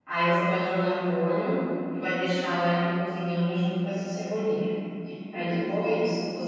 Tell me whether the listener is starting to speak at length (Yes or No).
No